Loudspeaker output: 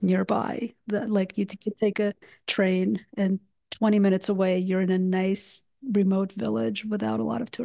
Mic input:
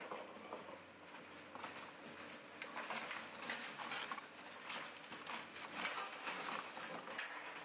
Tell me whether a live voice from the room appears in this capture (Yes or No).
No